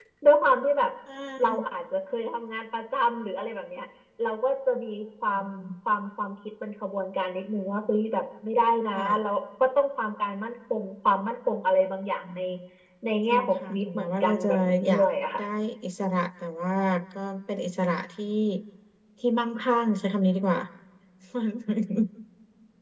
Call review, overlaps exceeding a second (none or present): present